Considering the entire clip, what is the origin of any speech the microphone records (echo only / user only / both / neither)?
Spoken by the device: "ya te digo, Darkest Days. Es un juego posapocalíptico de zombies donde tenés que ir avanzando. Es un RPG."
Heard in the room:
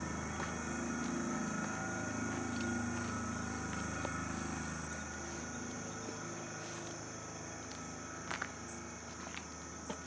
neither